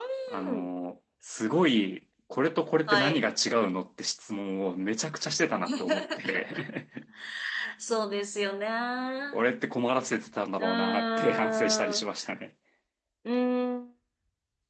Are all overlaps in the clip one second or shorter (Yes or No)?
No